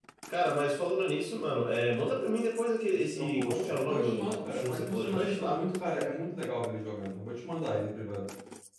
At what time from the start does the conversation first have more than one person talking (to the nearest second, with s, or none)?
3 s